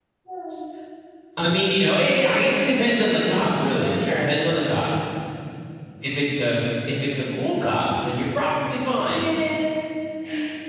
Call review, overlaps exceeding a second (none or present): none